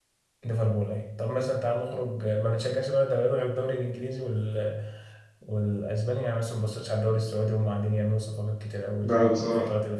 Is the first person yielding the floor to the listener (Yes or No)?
No